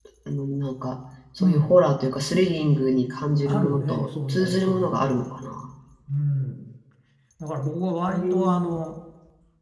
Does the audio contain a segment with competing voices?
Yes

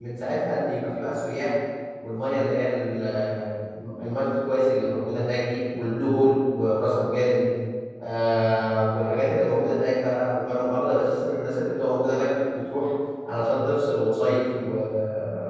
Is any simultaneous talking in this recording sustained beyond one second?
No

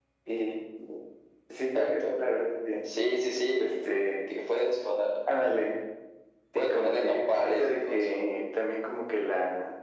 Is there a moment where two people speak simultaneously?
Yes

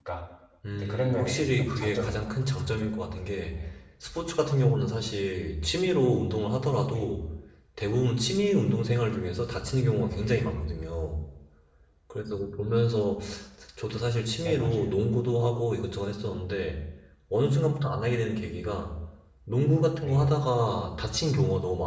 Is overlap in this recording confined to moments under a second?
No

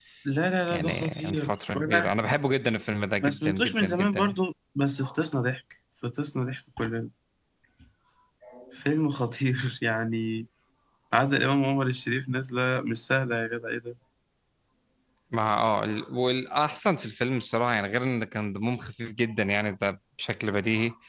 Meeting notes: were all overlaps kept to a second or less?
No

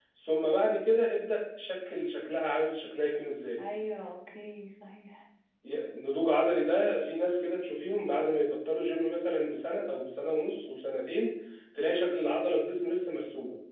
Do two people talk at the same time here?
No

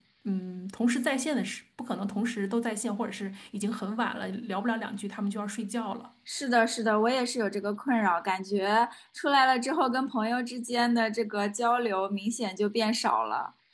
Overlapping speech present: No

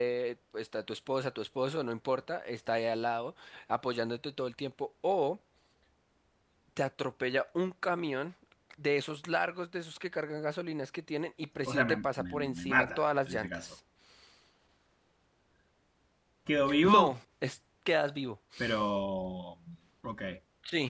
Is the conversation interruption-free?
No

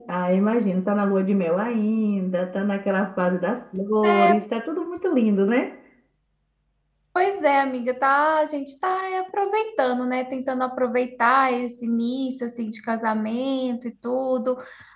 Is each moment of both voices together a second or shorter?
Yes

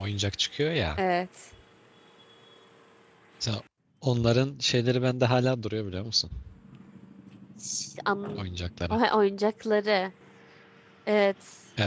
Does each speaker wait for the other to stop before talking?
Yes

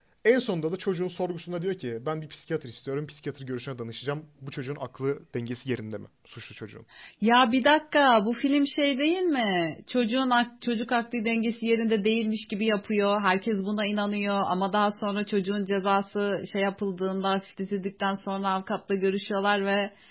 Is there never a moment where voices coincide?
Yes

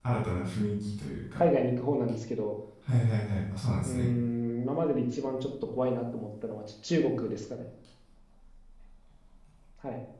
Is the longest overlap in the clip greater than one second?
No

